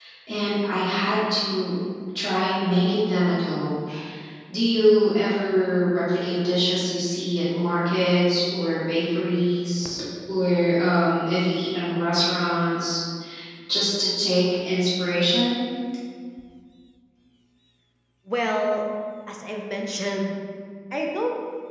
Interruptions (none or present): none